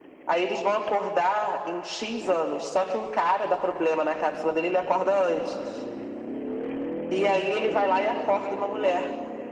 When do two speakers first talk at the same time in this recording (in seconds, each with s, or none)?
none